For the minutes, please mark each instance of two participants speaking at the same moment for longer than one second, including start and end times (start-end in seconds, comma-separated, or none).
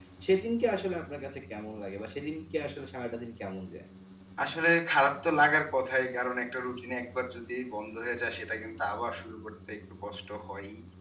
none